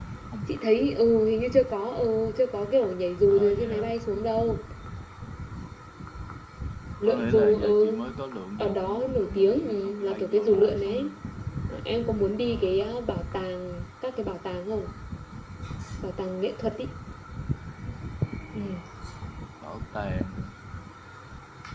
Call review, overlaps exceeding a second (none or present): present